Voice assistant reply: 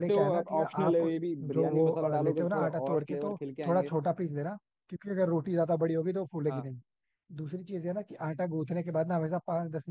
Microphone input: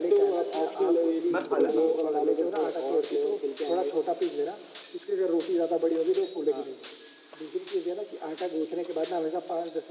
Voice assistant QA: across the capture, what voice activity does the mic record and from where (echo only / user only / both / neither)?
both